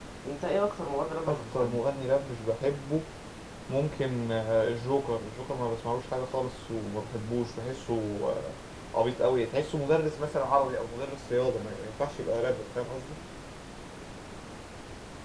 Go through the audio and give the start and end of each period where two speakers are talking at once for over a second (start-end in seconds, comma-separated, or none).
none